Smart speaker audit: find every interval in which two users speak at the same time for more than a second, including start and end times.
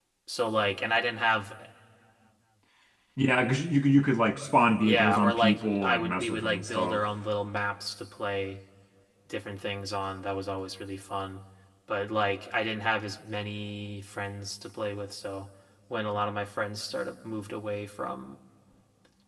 4.8-7.0

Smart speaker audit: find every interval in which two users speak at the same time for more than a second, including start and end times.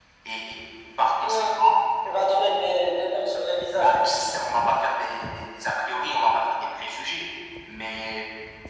none

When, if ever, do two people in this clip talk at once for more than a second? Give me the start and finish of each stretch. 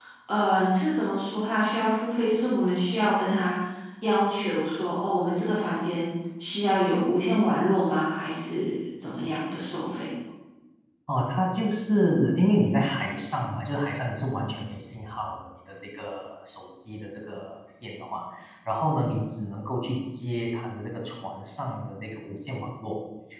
none

